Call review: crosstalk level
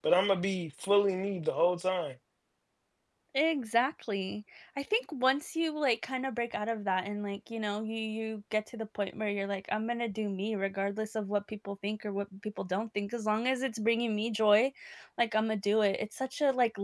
none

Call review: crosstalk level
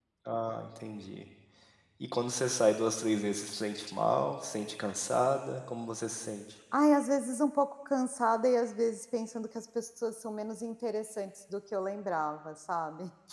none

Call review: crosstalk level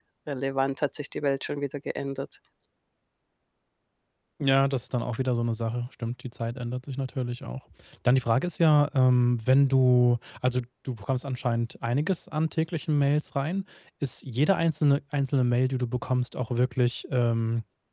none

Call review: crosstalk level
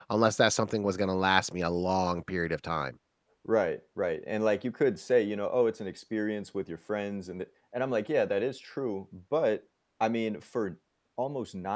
none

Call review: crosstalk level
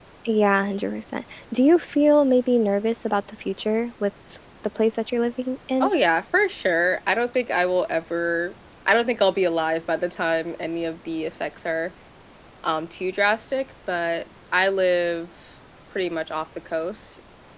none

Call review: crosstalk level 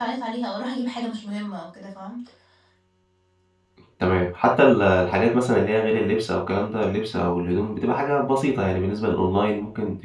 none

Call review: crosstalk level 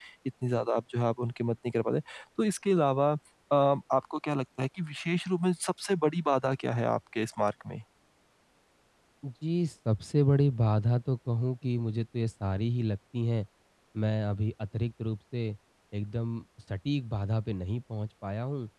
none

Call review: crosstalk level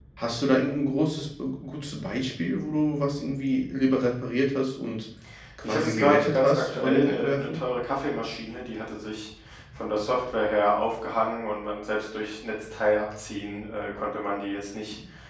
present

